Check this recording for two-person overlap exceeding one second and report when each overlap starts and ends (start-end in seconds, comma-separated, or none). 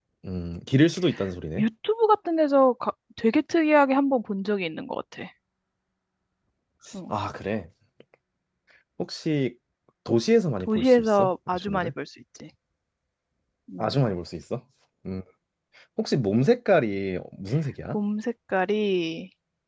10.6-11.9